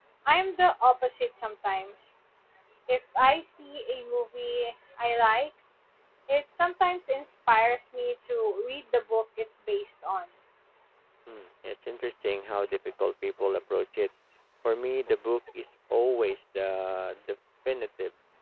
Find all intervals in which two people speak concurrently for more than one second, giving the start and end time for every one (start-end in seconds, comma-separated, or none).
none